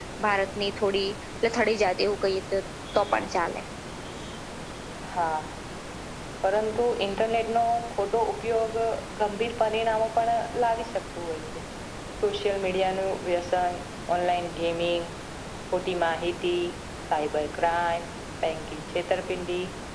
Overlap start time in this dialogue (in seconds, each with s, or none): none